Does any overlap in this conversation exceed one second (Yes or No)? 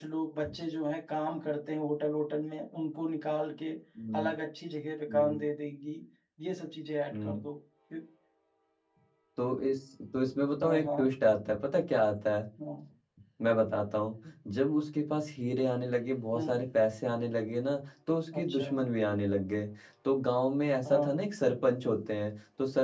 No